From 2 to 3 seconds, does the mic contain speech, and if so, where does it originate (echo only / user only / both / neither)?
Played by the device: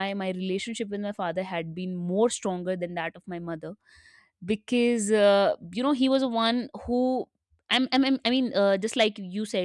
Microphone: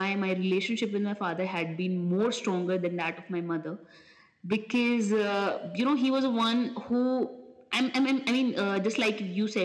echo only